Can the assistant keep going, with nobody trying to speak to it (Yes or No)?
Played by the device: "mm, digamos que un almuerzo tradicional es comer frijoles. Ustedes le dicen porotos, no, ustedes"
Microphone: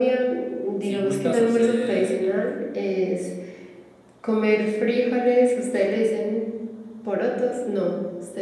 No